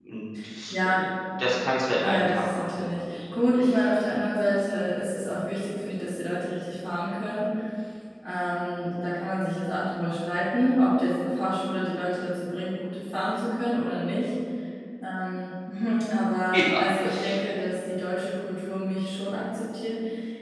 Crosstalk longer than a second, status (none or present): present